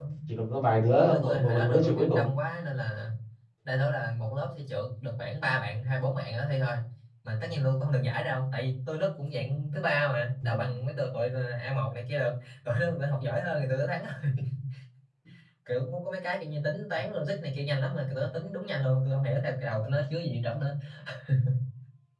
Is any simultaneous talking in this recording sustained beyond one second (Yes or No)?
Yes